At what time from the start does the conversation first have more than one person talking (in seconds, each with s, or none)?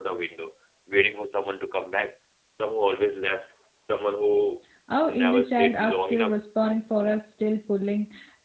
5.0 s